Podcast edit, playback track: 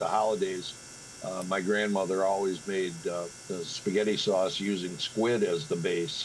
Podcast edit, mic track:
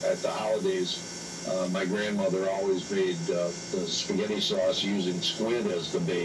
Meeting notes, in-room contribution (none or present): none